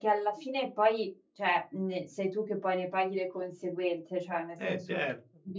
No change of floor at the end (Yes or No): Yes